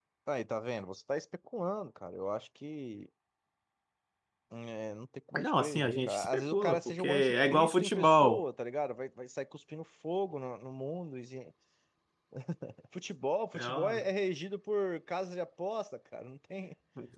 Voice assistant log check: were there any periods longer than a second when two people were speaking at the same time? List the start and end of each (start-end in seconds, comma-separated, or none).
5.4-8.4